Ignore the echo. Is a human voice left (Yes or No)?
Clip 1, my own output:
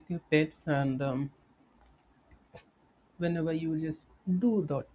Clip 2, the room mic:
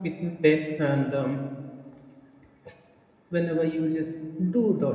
No